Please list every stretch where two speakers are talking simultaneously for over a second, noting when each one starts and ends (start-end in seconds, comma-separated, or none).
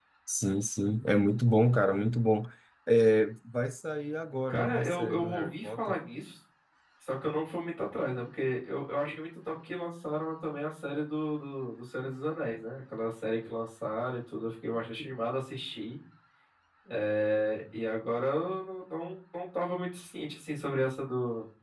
4.5-6.0